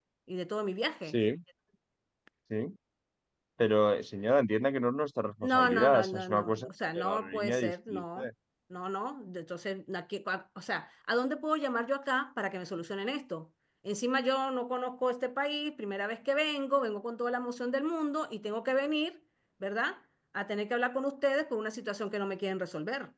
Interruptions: present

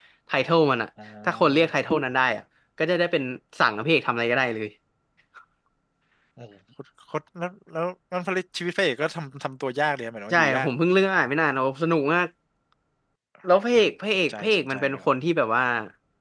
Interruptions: present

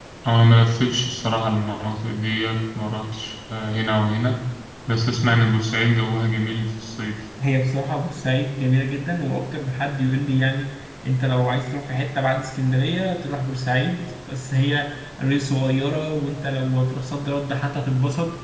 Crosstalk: none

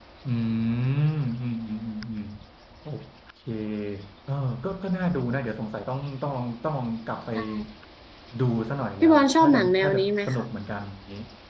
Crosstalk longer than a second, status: present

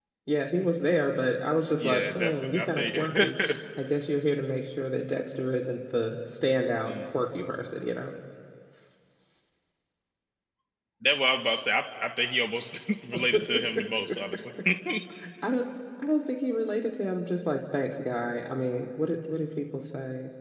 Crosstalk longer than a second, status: present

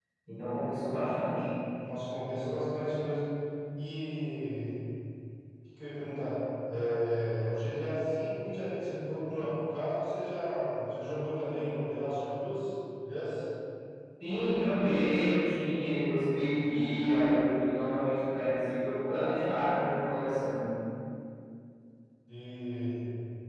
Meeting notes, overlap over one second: none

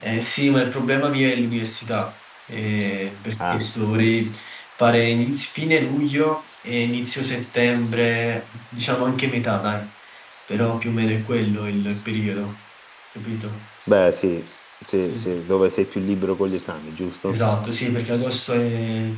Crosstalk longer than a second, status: none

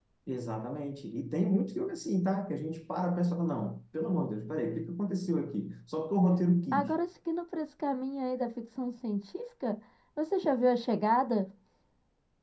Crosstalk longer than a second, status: none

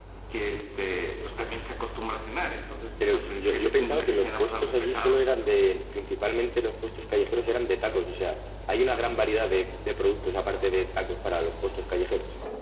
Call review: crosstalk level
present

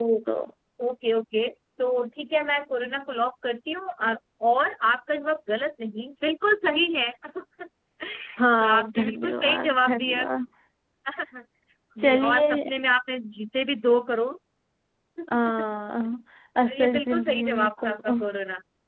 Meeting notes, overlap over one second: present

